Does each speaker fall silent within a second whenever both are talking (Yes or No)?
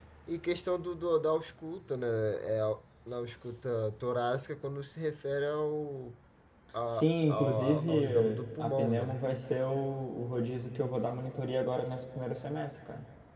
No